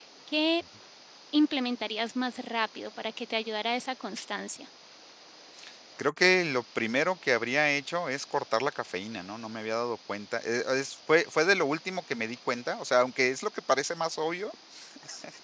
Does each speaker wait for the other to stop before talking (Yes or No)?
Yes